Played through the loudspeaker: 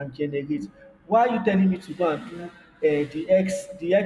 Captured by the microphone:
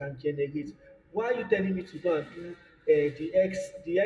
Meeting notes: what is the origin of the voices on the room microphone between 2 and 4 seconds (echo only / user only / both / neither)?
echo only